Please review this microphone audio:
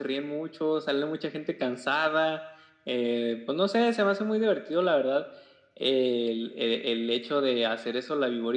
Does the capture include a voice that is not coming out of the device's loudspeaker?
No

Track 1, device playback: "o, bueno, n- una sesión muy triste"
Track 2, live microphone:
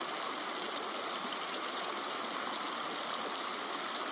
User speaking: No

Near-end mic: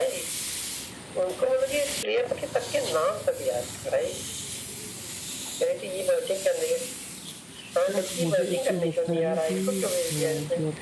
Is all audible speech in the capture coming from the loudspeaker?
No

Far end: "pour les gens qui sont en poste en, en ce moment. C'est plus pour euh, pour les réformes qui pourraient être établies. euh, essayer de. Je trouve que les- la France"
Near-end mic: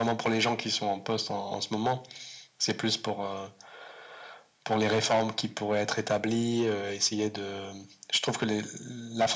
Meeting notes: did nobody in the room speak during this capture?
Yes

